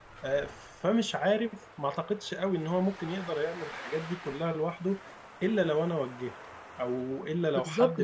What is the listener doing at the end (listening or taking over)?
taking over